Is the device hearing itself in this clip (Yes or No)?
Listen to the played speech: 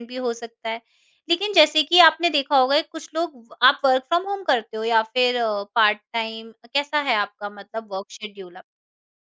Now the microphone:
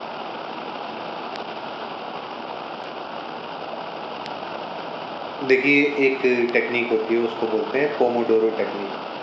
No